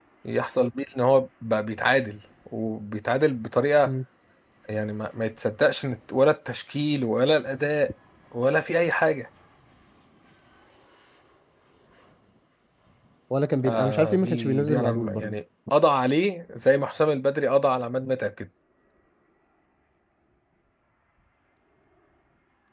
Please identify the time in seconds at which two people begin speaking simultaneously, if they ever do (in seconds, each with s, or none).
13.6 s